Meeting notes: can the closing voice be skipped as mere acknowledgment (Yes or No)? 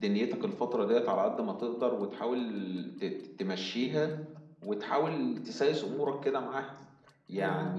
No